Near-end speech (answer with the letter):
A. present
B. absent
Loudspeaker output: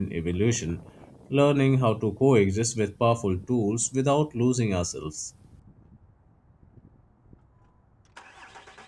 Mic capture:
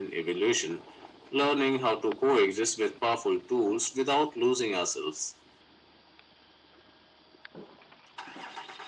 B